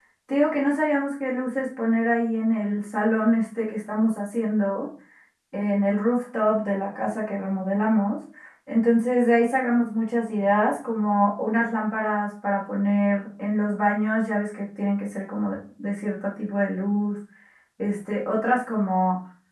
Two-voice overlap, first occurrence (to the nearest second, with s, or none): none